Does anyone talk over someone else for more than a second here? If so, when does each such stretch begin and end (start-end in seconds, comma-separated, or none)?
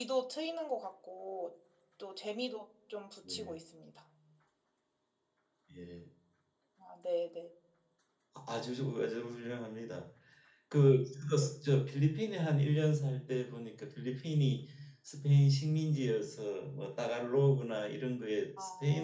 none